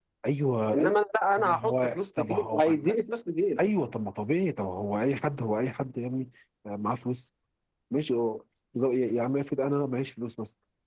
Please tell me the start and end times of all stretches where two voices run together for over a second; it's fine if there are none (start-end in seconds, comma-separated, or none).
1.4-2.9